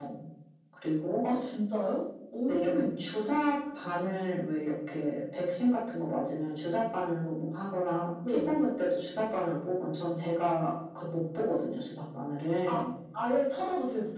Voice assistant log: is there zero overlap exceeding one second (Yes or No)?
Yes